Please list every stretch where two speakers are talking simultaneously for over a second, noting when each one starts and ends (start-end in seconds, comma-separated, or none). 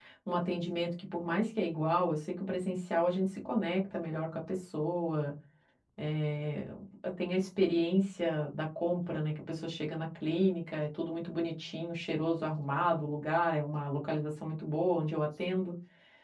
none